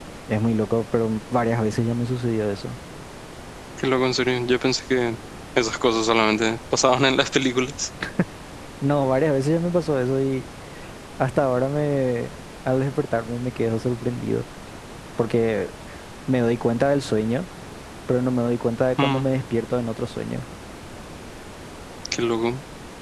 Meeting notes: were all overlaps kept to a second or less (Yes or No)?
Yes